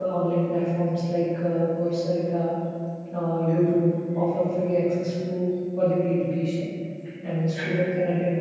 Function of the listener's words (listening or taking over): listening